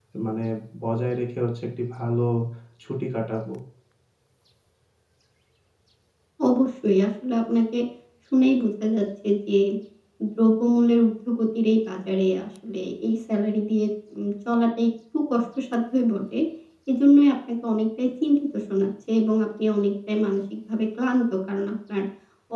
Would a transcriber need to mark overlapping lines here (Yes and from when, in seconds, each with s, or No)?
No